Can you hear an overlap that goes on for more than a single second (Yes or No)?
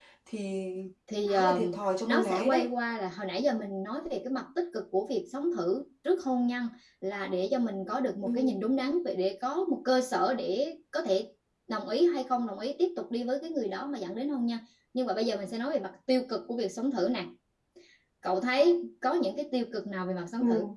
Yes